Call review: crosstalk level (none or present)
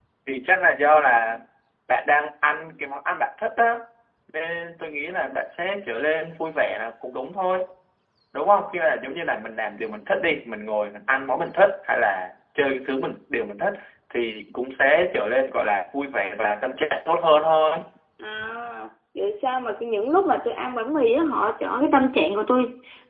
none